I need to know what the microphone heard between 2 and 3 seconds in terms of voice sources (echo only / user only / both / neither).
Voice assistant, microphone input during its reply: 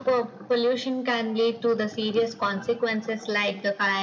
echo only